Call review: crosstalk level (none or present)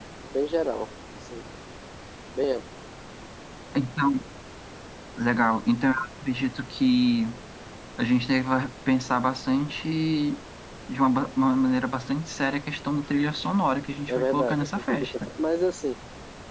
present